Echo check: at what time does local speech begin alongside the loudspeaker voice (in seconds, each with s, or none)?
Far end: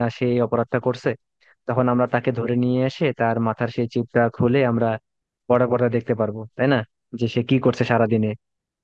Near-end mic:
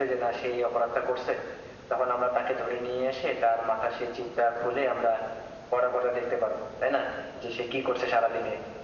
none